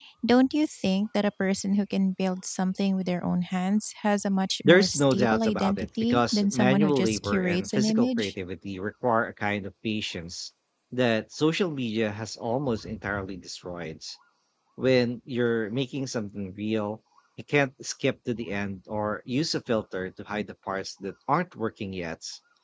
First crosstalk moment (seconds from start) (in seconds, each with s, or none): 4.6 s